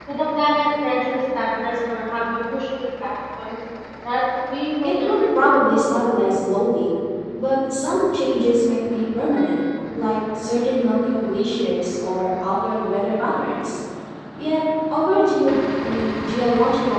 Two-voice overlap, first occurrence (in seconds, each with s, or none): 4.3 s